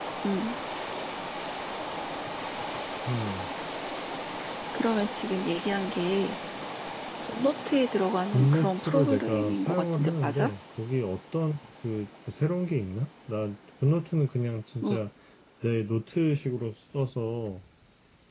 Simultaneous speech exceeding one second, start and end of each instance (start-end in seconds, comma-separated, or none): 8.3-10.5